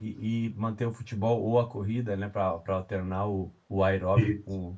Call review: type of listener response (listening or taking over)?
listening